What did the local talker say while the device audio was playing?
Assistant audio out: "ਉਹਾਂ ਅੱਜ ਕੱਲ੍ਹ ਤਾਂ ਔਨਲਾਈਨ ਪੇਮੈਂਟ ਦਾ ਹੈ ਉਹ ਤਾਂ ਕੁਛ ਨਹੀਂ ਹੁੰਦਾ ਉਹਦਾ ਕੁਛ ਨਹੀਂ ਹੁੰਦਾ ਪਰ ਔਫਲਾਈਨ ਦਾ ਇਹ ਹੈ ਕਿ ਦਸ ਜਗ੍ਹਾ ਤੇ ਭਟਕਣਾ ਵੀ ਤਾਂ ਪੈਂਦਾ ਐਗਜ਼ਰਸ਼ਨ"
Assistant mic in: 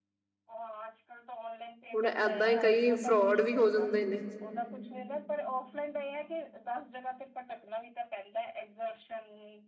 ਹੁਣ ਏਦਾਂ ਹੀ, ਕਈ ਫਰੋਡ ਵੀ, ਹੋ ਜਾਂਦੇ ਨੇ।

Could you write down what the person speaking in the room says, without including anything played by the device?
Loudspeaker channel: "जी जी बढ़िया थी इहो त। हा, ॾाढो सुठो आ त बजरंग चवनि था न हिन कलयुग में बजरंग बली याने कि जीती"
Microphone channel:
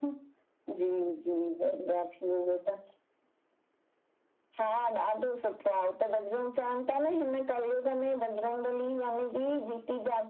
none

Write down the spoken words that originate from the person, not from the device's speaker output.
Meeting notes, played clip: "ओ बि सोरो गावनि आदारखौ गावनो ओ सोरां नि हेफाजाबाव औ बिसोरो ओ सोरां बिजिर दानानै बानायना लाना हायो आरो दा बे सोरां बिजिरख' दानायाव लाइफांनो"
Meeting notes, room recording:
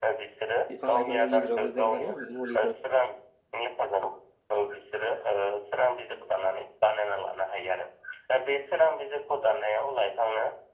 बिफां लाइफांनि गेजेरावबो जों माने मुलिफोर

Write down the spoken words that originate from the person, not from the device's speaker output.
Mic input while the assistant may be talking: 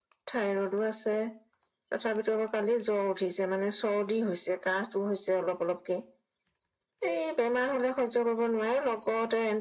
none

